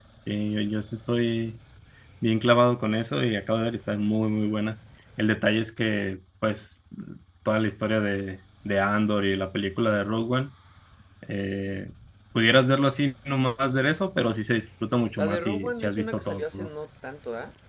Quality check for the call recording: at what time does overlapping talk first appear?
15 s

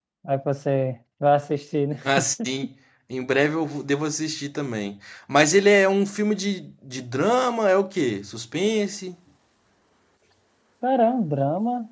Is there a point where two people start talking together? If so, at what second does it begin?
none

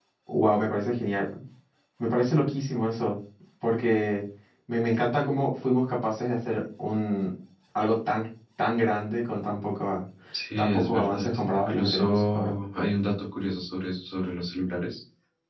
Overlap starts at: 11 s

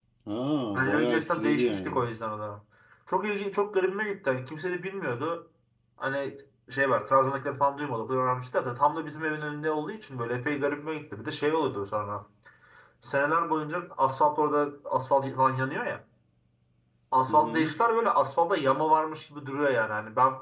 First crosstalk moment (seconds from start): 1 s

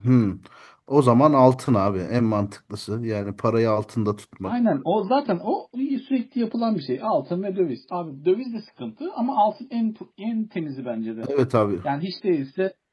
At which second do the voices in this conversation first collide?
none

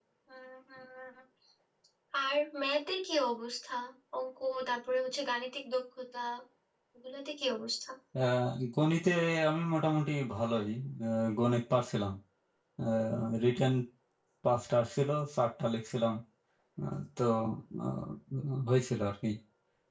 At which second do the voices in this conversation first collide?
none

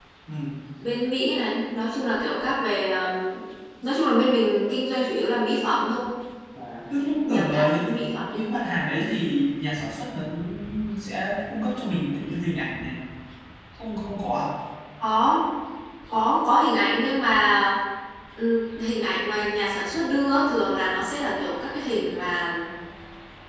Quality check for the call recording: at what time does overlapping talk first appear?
7 s

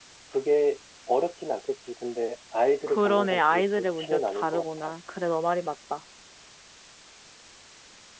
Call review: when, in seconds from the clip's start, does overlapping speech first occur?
3 s

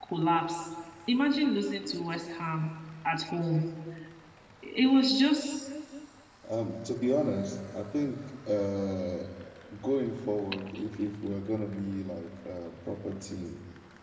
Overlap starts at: none

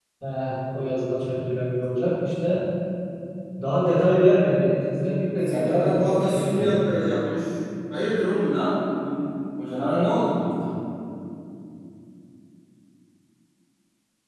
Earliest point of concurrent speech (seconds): 5 s

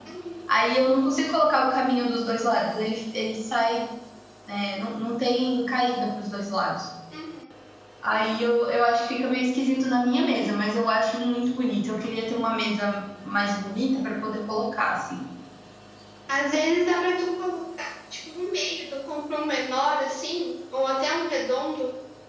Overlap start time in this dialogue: none

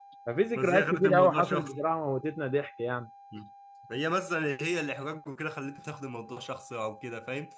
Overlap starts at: 1 s

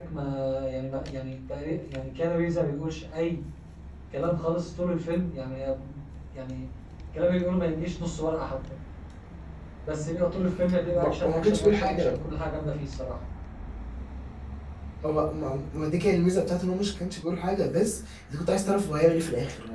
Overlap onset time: 11 s

